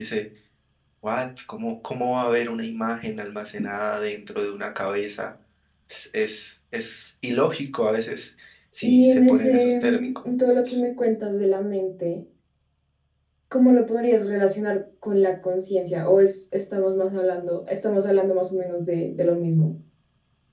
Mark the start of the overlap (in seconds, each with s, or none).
8.8 s